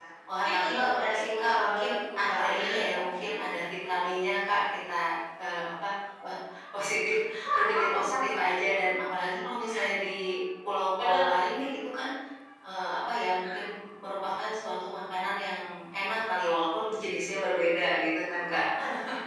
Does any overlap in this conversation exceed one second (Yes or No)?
Yes